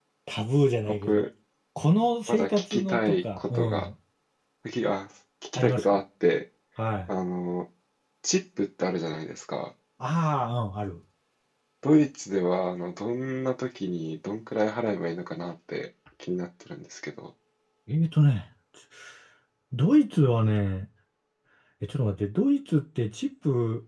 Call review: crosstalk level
present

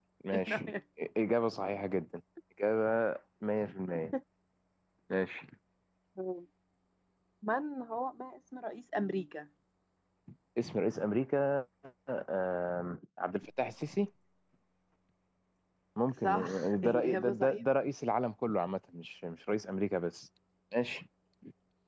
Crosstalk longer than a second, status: present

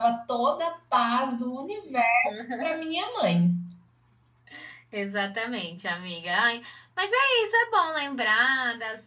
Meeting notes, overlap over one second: none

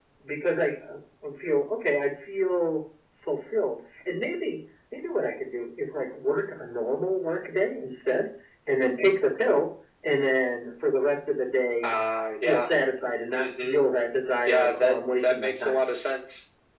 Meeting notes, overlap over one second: present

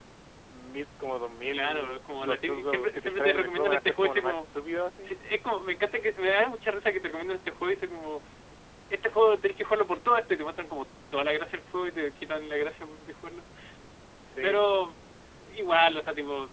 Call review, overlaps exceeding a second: present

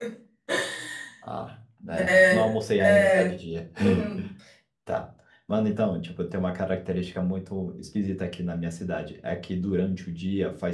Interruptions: present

